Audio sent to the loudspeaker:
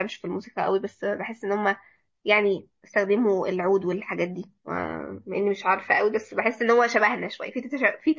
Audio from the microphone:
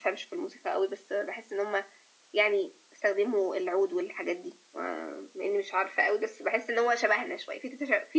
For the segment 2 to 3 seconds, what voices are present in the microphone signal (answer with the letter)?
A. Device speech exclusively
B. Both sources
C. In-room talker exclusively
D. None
A